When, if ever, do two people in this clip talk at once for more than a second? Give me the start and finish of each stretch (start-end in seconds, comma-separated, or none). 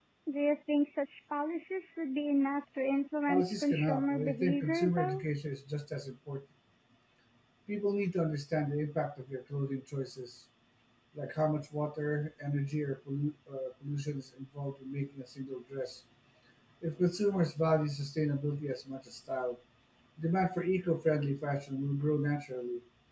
3.3-5.2